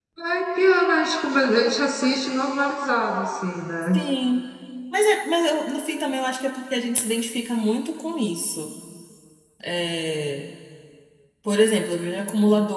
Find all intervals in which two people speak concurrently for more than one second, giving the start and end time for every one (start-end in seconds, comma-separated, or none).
none